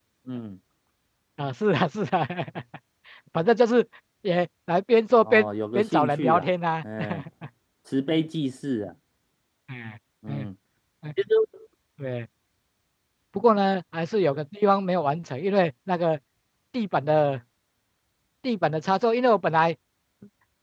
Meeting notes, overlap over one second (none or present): present